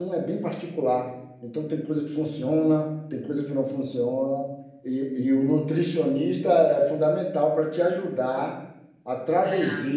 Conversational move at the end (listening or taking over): listening